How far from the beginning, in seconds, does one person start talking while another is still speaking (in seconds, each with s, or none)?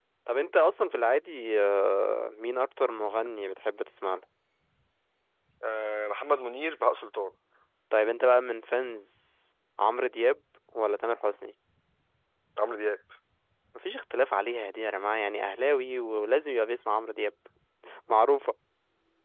none